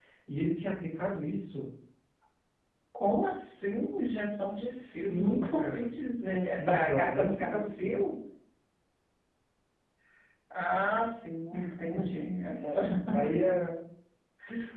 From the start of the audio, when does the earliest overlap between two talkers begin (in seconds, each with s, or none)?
4.4 s